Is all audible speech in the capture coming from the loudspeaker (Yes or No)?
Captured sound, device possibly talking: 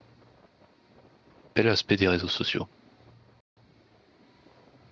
No